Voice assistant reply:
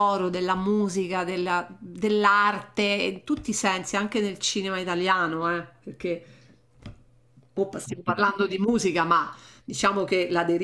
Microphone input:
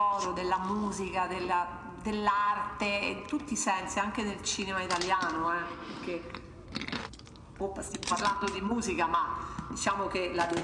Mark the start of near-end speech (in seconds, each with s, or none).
none